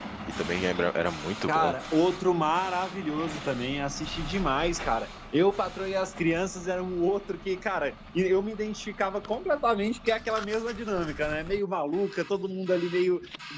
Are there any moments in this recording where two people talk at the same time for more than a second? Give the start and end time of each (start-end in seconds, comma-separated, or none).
none